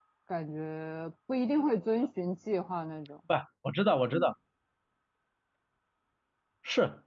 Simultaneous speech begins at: none

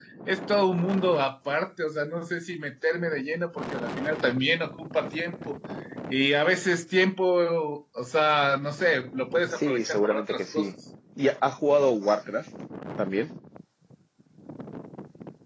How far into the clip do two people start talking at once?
9.4 s

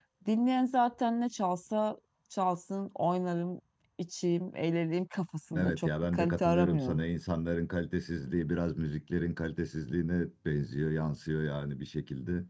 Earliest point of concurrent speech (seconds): 5.5 s

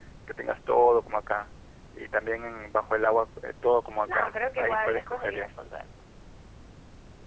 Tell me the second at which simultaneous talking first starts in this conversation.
4.1 s

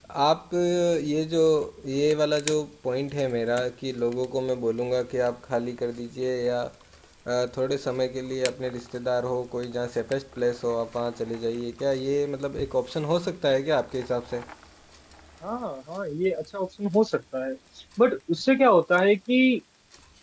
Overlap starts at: none

